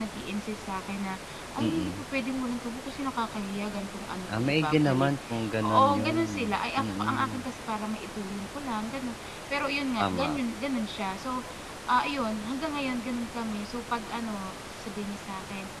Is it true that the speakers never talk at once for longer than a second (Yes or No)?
No